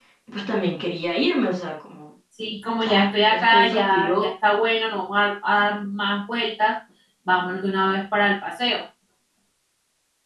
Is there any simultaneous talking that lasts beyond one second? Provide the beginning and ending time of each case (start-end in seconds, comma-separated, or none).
2.8-4.2